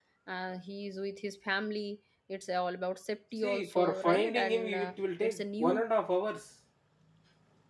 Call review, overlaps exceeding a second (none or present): present